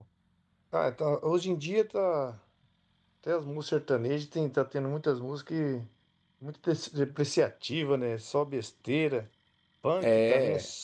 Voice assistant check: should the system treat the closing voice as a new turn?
No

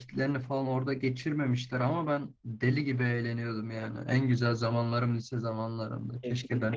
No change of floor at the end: No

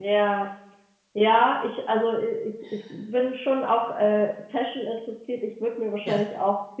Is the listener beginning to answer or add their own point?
No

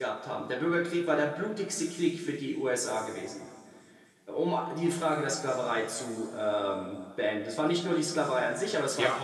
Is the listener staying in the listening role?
No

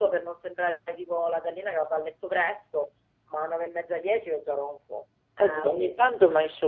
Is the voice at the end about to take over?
Yes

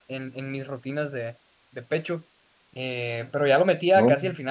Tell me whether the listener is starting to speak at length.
No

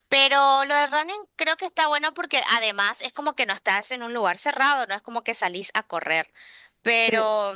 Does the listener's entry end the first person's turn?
No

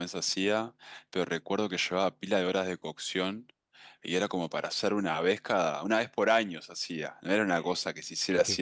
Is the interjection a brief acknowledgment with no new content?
No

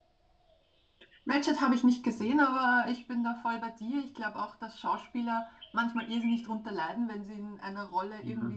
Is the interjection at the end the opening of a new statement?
No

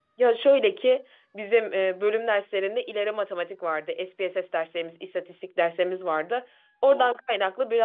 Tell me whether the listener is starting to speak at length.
No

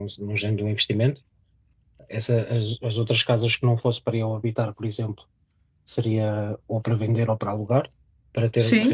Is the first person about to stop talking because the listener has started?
Yes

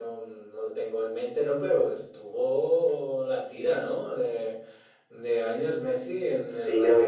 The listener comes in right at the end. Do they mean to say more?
Yes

